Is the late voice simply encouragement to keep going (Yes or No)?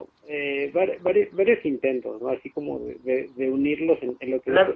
No